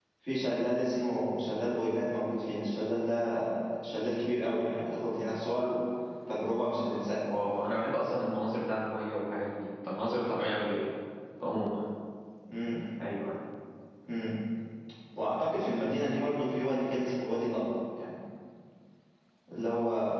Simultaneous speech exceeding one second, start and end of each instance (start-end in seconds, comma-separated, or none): none